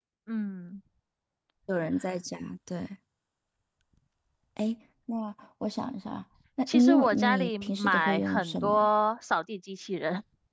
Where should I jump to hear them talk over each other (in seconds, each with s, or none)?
6.7 s